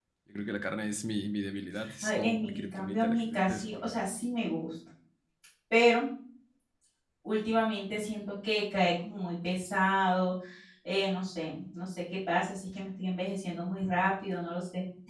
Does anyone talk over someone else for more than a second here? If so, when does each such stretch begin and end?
2.0-4.0

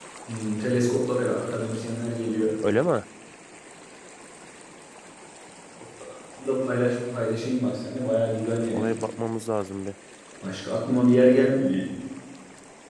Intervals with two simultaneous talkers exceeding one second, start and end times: none

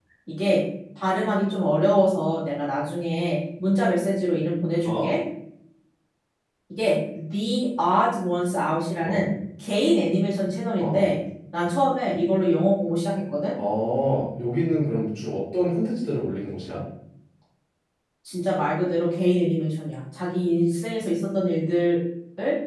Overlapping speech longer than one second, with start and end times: none

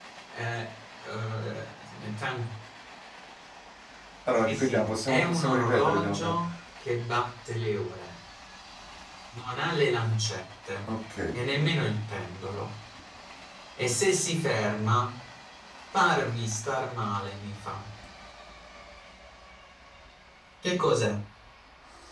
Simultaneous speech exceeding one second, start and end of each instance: 4.5-6.4

